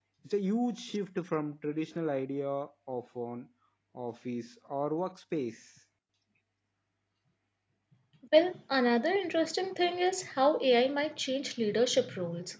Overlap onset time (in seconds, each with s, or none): none